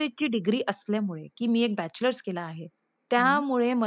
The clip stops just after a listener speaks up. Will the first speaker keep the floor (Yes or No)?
Yes